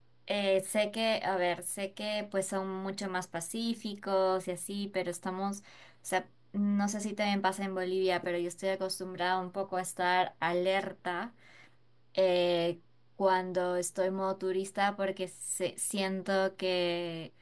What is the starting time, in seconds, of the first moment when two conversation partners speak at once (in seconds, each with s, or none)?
none